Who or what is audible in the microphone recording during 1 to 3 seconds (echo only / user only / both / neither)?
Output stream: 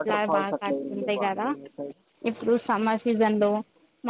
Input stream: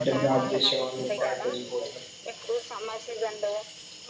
both